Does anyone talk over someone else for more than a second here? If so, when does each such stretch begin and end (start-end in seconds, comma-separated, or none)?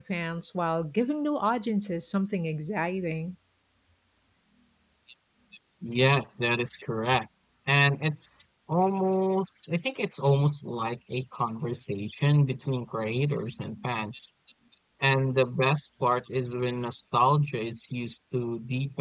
none